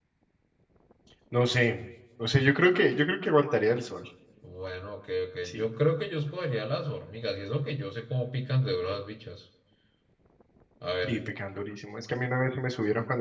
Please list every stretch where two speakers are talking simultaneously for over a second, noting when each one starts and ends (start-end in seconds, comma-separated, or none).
none